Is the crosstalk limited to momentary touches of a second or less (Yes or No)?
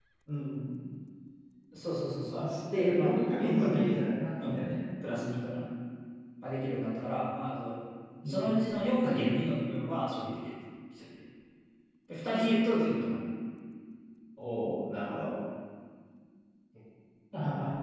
No